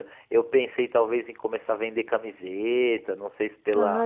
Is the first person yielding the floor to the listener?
No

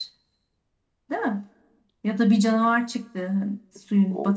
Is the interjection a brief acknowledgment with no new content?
No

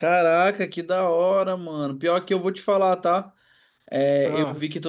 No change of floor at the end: Yes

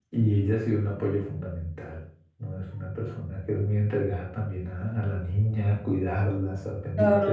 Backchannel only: No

